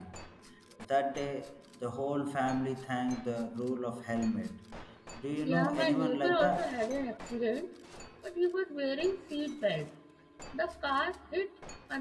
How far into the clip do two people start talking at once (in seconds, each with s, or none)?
5.4 s